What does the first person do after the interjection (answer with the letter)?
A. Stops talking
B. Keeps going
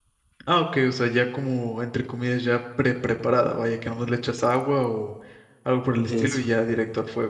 B